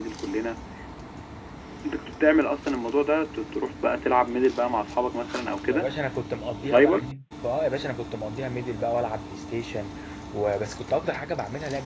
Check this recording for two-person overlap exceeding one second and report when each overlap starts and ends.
none

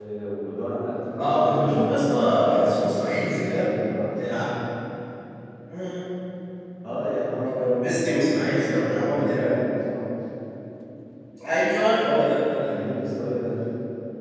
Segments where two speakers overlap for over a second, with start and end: 1.2-3.6, 7.7-9.6

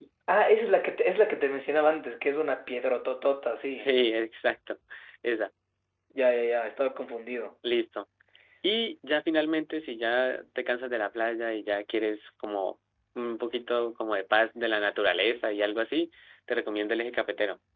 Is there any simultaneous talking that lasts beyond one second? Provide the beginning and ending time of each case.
none

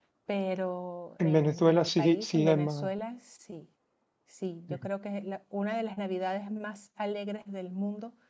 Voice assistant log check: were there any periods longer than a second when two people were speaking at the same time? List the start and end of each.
1.2-2.9

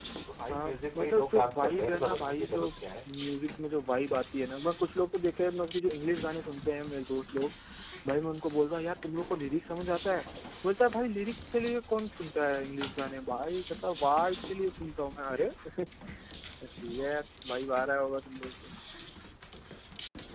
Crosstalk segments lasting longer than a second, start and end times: 0.5-2.7

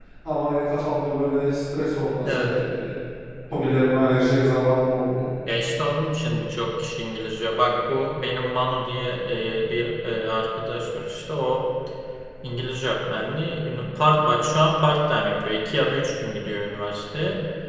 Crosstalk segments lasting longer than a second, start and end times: none

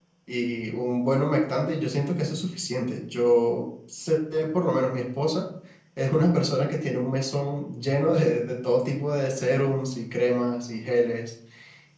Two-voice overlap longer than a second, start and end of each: none

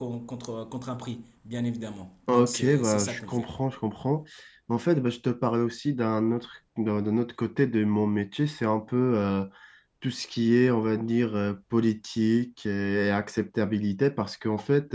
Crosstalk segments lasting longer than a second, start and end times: 2.3-3.5

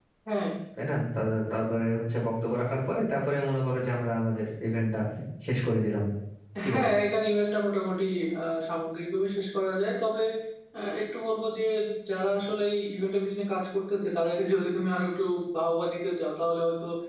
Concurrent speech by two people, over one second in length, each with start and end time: none

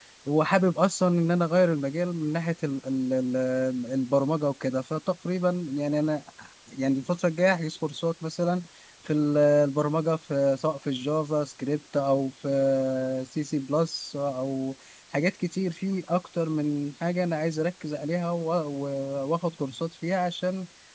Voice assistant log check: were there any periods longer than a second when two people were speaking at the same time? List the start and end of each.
none

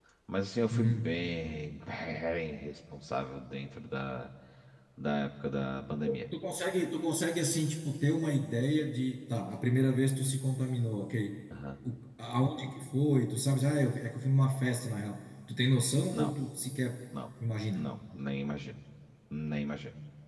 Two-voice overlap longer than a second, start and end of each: none

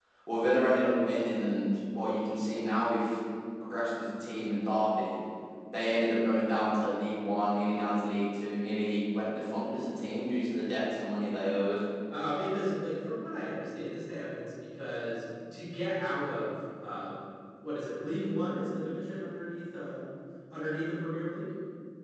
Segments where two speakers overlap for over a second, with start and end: none

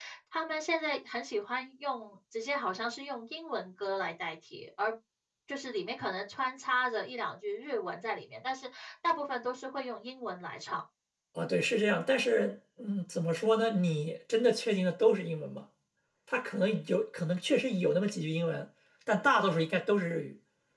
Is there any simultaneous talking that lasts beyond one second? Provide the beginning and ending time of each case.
none

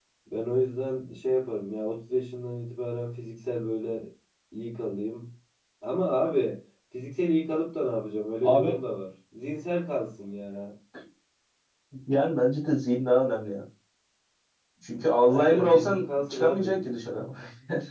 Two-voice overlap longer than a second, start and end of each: 15.3-17.0

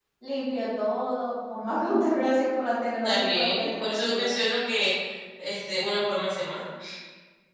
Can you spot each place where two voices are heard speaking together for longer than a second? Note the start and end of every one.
3.0-4.3

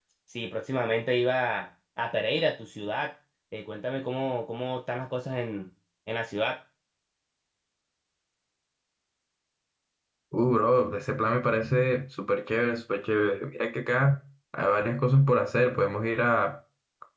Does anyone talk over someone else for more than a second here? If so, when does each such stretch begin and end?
none

